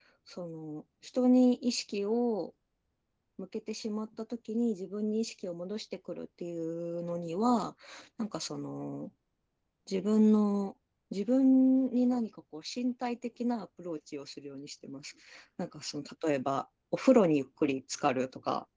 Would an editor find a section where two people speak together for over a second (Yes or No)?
No